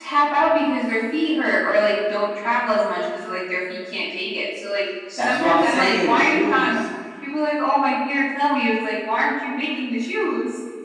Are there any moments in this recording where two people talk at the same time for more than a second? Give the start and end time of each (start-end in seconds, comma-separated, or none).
5.2-6.7